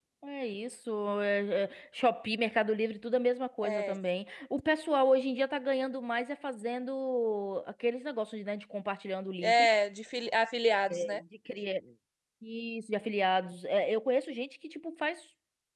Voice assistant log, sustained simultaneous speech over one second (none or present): none